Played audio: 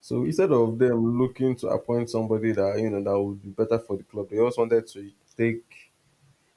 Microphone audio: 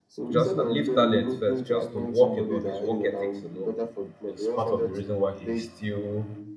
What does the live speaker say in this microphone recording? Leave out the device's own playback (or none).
Just uh, leave talent first, just the work alone, his work ethics alone, is part of the reason why he is still